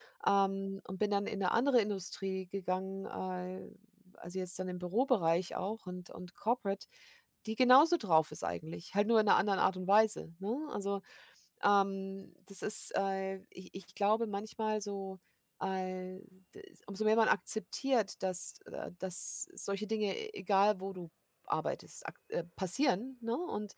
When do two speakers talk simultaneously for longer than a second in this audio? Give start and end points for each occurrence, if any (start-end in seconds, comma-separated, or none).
none